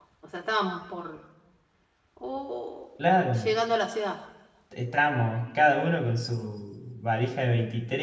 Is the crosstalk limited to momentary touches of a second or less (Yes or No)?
Yes